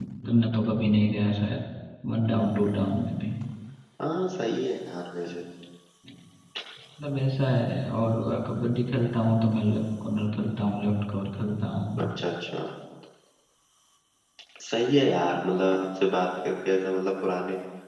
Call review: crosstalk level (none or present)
none